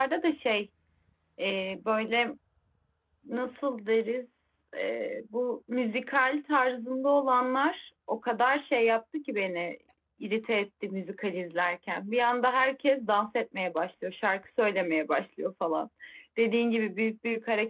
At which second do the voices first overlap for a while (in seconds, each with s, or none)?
none